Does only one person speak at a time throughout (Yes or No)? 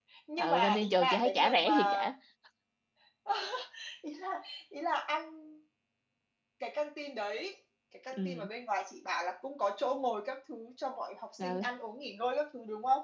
No